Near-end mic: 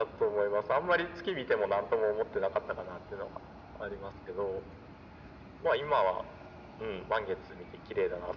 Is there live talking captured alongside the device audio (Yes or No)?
No